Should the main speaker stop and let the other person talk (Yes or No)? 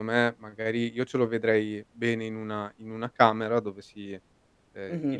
No